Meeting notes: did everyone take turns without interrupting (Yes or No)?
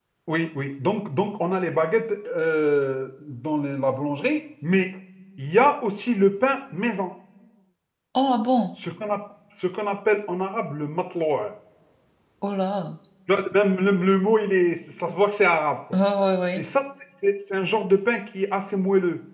Yes